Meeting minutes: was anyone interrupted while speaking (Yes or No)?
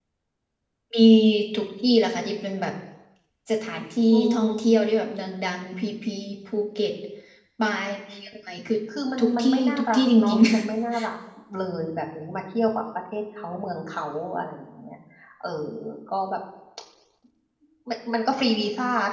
Yes